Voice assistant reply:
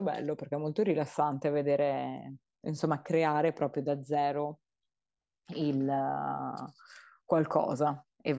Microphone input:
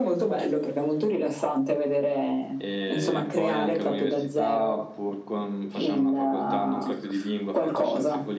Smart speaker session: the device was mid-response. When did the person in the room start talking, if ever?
2.6 s

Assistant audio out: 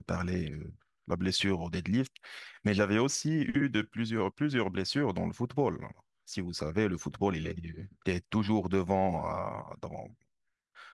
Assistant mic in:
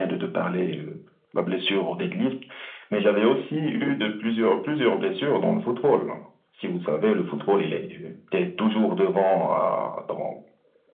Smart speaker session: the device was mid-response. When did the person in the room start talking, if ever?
none

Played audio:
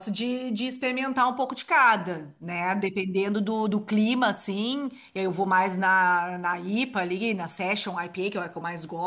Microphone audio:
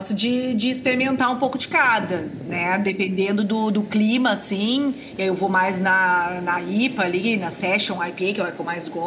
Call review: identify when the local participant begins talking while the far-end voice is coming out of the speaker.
none

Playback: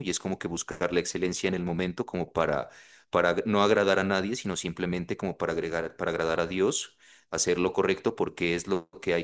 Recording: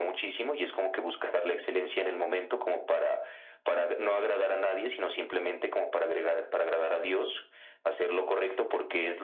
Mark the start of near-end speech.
none

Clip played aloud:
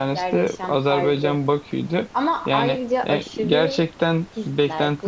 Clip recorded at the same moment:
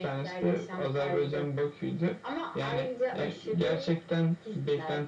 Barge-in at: none

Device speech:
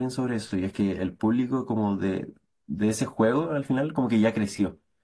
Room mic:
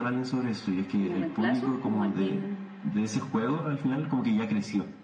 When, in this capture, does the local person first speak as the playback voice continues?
0.9 s

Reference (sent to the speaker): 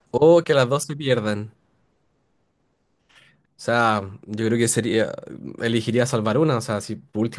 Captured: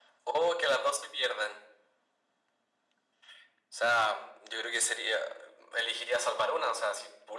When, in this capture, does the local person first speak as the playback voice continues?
none

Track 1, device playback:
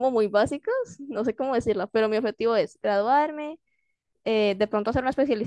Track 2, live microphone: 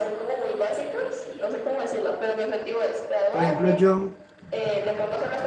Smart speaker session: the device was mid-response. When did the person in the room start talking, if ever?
3.3 s

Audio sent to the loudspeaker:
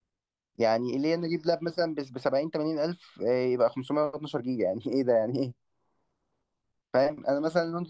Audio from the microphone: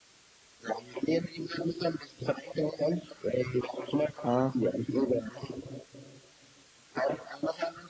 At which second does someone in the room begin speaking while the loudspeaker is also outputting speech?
4.2 s

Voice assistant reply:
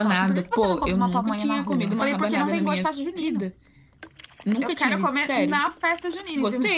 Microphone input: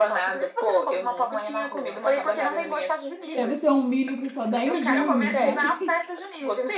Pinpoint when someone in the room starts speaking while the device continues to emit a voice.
3.3 s

